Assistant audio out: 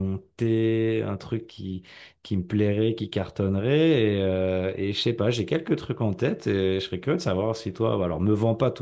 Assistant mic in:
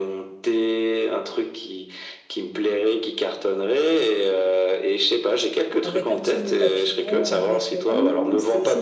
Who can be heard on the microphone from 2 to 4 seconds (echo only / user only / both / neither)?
echo only